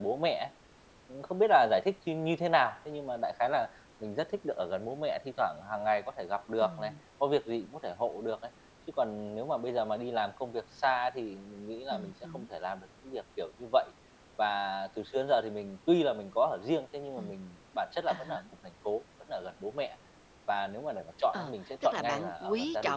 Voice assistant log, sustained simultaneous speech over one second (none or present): present